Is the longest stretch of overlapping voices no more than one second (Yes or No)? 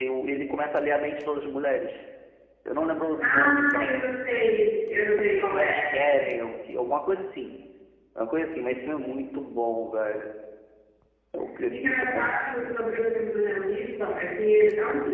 No